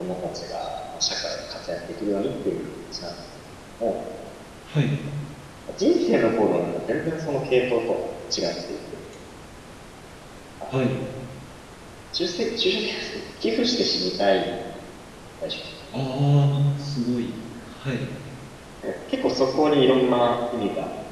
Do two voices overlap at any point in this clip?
No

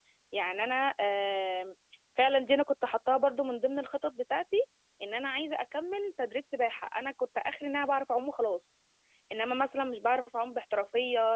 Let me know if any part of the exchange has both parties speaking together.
No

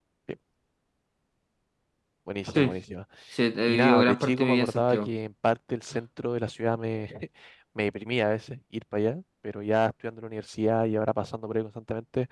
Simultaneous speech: Yes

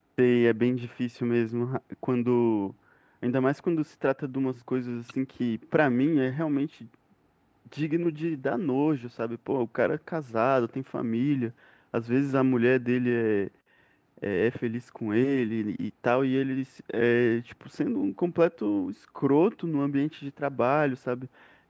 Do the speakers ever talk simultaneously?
No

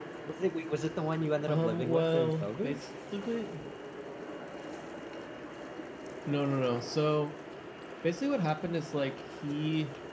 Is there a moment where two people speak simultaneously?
Yes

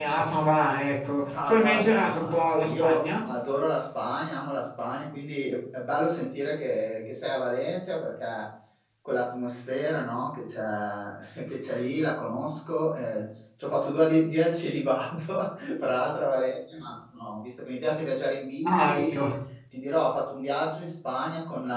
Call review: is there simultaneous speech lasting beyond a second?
Yes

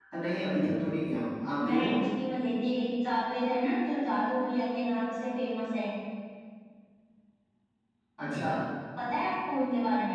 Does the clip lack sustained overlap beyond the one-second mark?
Yes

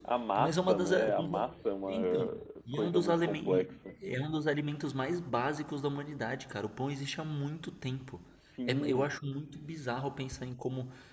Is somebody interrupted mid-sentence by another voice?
Yes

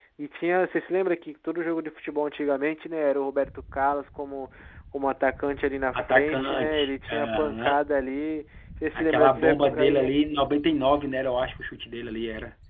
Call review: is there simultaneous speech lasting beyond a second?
Yes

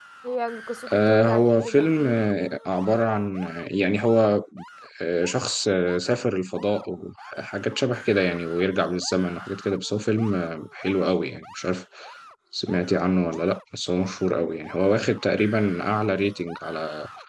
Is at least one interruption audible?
Yes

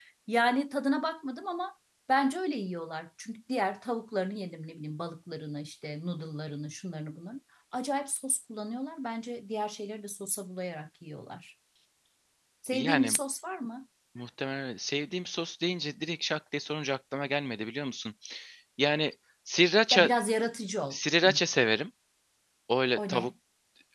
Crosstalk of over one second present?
No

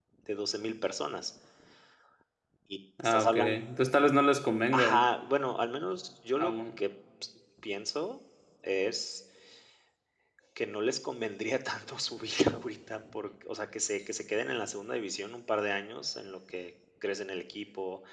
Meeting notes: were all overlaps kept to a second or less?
Yes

